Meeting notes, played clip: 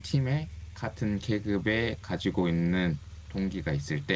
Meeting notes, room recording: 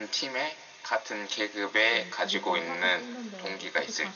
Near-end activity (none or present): present